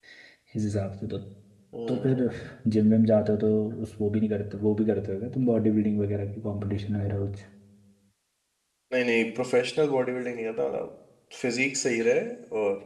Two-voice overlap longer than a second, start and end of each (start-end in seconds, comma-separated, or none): none